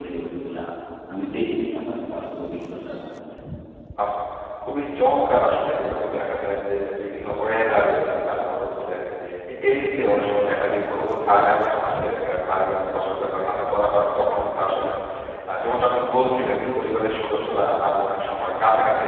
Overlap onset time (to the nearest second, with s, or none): none